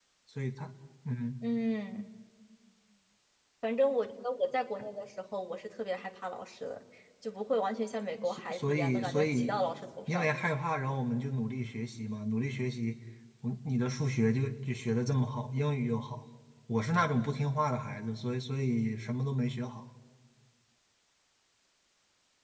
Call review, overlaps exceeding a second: present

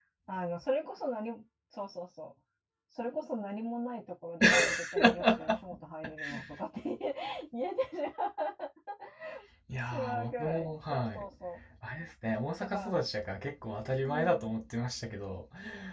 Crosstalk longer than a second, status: present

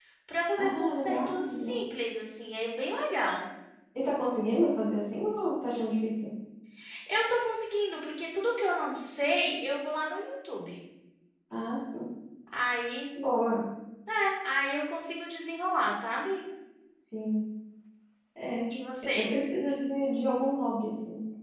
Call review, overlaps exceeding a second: present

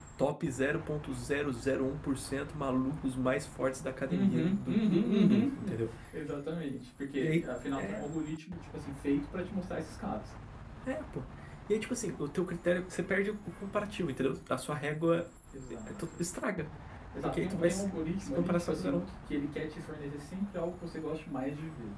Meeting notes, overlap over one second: present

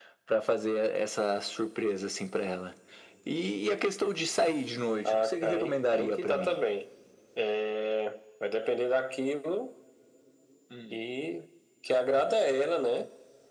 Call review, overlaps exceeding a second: present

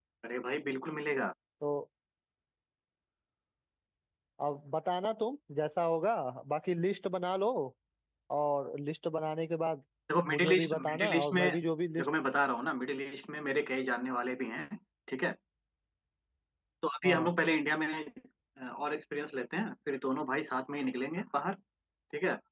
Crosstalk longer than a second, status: present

